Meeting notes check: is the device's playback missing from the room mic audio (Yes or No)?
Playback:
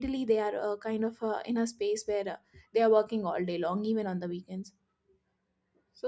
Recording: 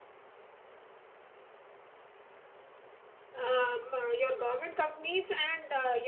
Yes